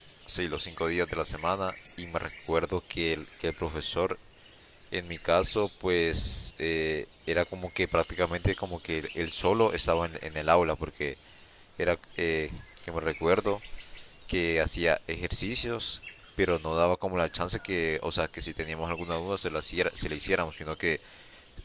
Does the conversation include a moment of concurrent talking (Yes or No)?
No